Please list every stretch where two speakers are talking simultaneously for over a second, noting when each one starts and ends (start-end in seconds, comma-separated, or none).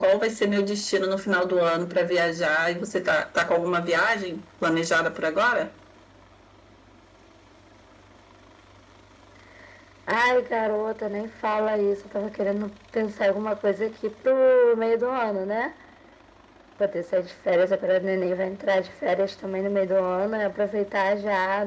none